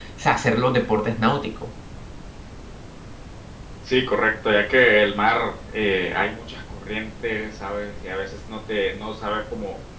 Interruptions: none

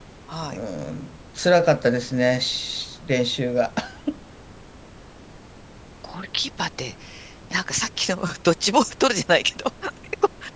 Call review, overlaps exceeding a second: none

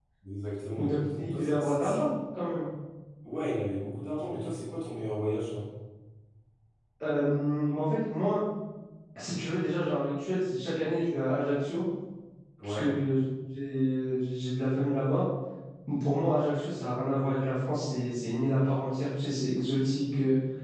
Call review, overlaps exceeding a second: present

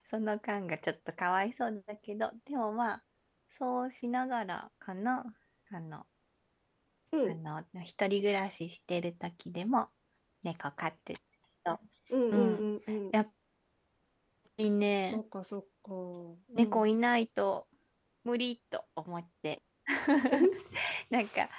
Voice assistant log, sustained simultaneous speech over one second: none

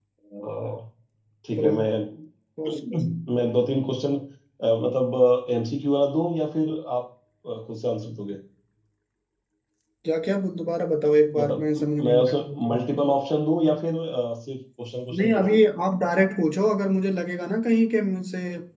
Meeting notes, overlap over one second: present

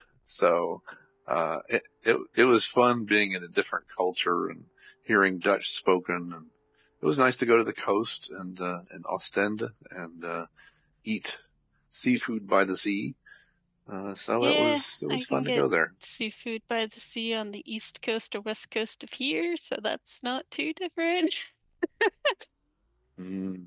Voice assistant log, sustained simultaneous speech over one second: present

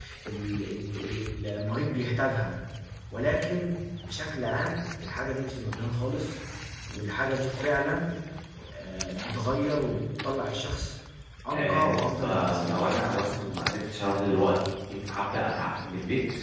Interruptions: present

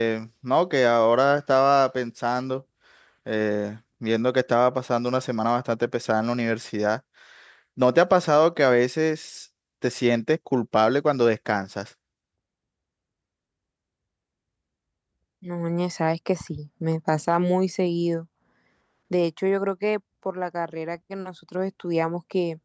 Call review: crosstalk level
none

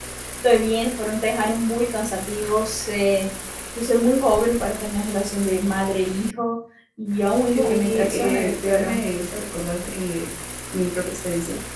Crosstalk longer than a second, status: present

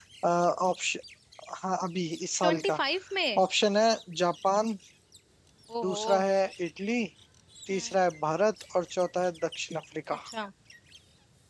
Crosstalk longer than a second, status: none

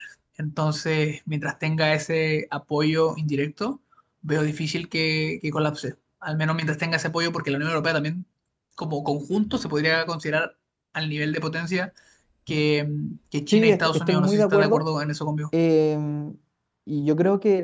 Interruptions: present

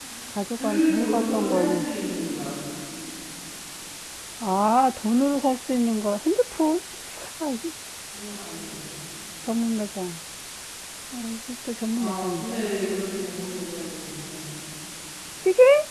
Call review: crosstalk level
present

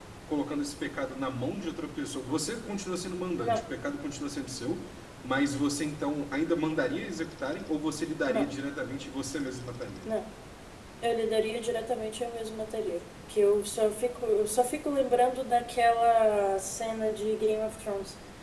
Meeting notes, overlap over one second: none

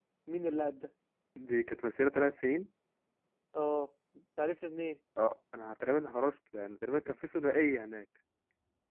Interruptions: none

